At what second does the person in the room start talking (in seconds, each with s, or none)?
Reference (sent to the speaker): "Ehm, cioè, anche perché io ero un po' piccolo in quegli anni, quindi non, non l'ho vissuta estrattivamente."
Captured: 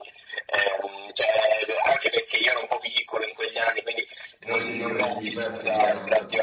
4.4 s